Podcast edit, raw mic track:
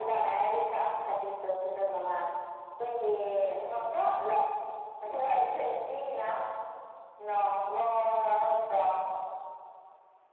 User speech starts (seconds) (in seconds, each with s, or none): none